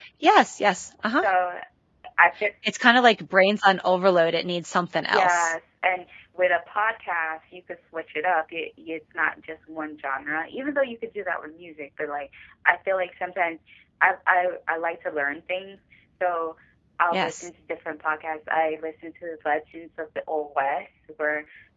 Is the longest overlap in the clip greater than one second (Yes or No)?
No